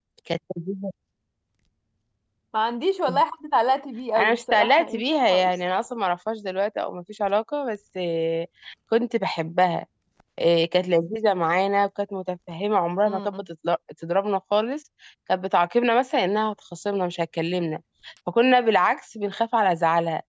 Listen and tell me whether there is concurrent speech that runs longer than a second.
Yes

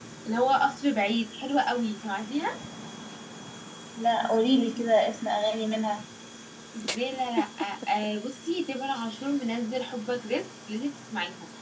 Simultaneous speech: No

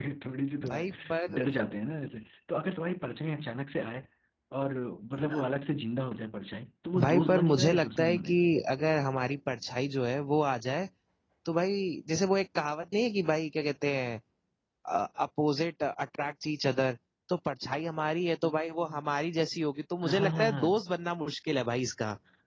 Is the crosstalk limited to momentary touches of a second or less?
No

